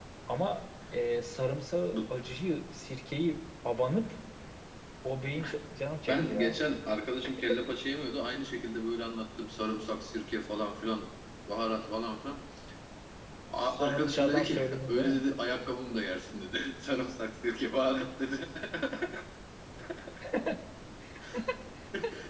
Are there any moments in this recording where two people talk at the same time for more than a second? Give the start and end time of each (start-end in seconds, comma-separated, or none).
13.6-15.2